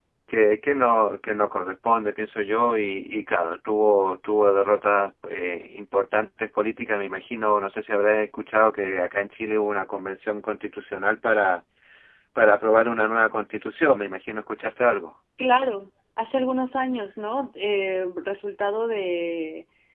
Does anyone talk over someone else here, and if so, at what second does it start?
none

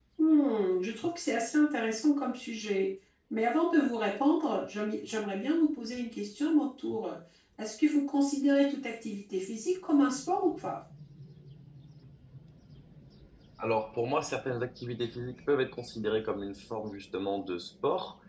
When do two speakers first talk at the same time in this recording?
none

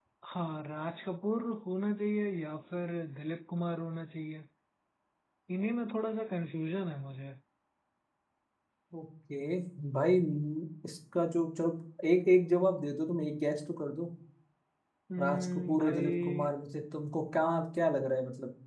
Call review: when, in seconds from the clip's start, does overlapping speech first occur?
15.2 s

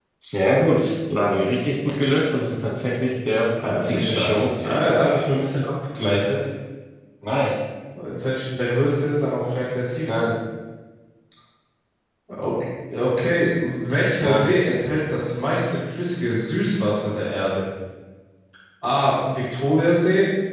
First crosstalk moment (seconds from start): 3.5 s

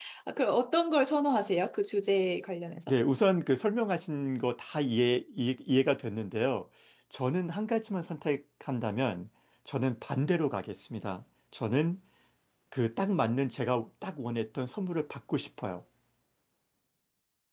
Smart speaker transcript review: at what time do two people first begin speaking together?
none

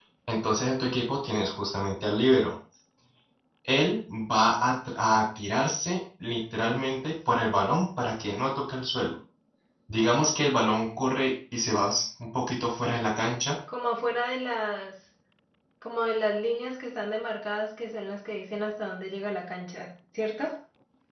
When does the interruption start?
none

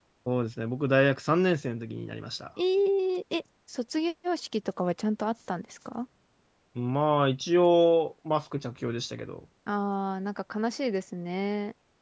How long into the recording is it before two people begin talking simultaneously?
none

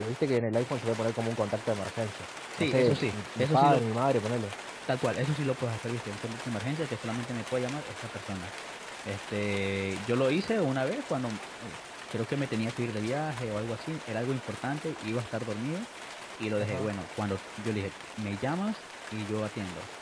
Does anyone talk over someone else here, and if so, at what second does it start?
2.6 s

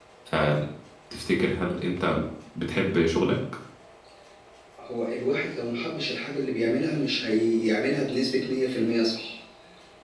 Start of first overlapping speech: none

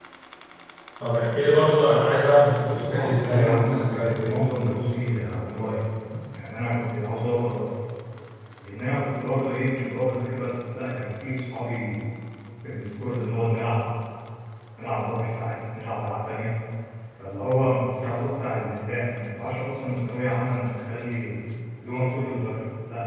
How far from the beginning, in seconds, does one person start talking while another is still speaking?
2.6 s

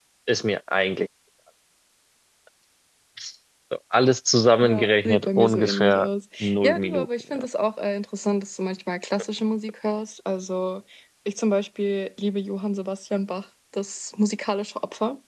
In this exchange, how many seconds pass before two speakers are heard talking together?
4.6 s

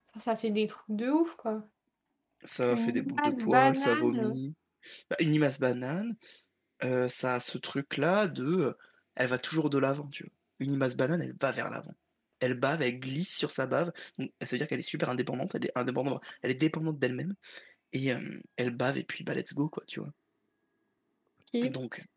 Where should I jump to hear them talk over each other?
2.6 s

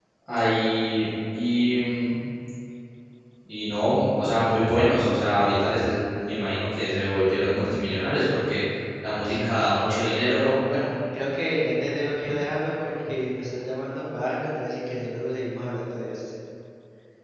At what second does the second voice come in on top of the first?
9.2 s

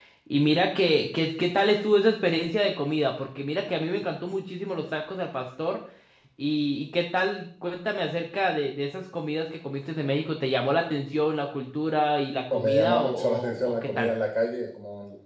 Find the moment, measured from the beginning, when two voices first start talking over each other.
12.5 s

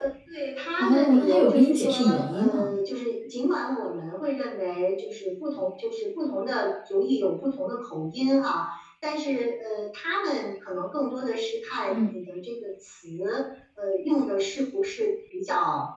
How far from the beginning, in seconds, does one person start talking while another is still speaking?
0.8 s

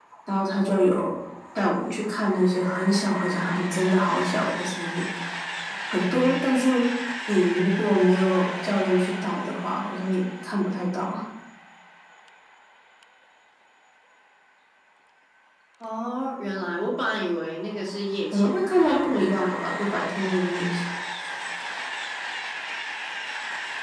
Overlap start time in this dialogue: 18.3 s

